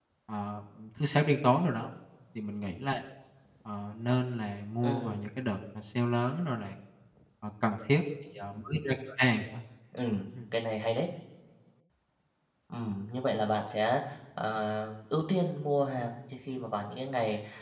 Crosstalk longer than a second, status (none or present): none